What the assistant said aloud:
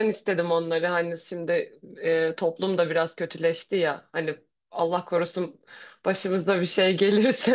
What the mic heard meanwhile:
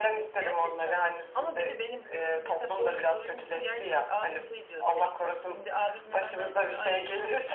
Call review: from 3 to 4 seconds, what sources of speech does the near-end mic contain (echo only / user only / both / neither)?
both